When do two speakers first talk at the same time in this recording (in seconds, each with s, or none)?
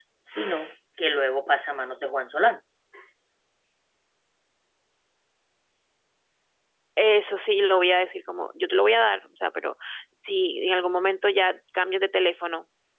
none